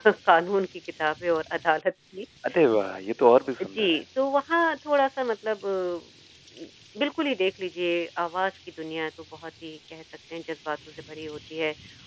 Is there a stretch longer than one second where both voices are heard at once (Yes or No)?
No